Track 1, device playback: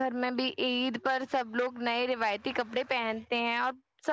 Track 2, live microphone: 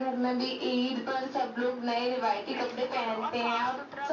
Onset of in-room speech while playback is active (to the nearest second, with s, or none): 3 s